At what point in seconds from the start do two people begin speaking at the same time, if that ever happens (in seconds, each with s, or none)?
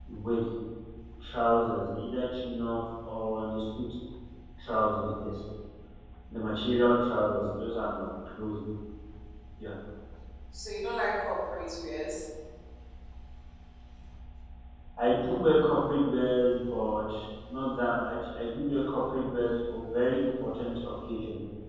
none